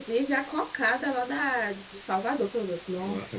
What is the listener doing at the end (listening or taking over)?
taking over